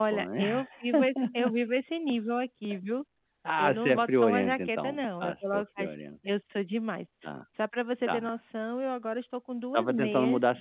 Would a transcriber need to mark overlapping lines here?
Yes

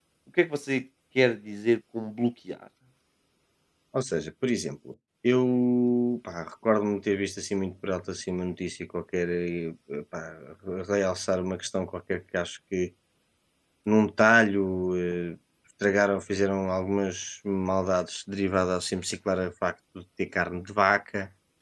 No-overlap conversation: Yes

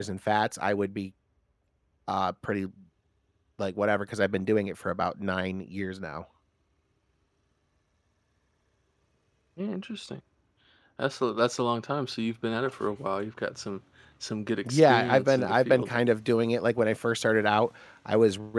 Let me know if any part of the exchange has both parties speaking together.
Yes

